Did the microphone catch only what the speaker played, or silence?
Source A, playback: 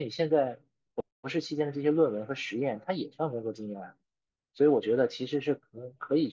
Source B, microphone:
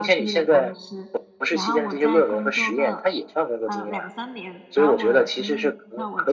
No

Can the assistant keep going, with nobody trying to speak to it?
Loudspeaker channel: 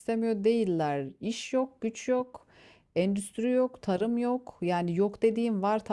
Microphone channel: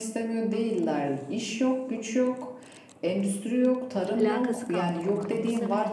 No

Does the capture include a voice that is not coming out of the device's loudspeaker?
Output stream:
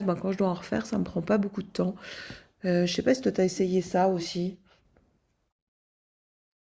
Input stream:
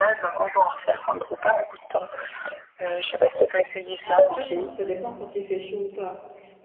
Yes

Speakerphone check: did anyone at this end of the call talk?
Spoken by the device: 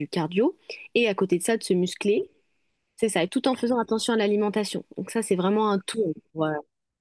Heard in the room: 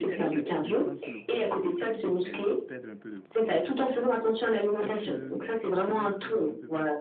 Yes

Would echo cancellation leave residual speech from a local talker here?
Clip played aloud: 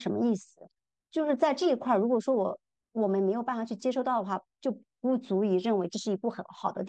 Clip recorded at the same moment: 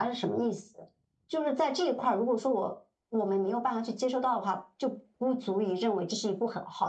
No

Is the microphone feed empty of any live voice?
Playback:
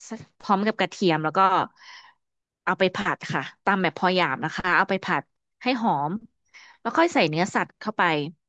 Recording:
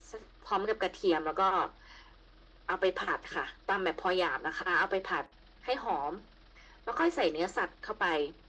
Yes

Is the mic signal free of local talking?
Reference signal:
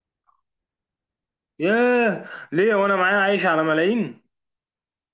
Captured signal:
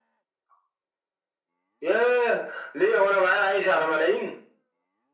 Yes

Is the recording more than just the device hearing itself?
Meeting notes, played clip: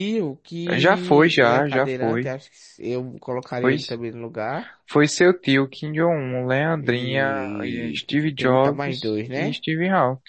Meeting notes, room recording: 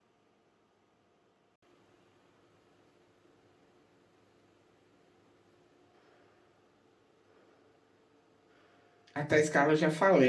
Yes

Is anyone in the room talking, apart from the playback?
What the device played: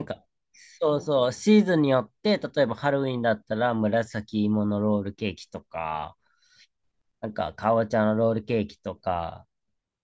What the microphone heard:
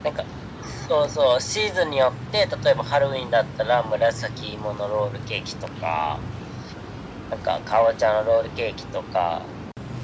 No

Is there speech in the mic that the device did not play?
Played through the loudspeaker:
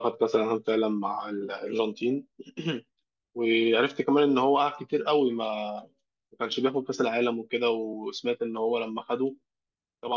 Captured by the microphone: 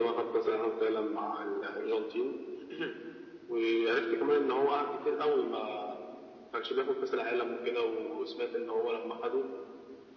No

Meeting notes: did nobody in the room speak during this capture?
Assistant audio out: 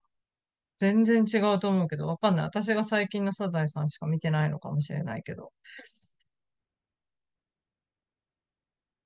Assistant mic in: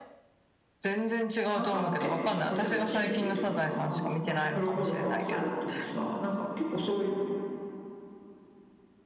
No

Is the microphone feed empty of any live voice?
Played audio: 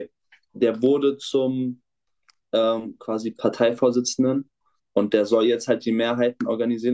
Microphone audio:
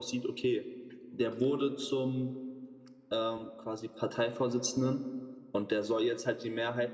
Yes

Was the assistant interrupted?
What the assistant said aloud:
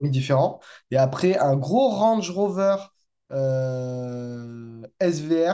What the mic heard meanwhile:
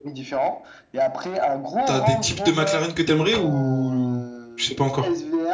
Yes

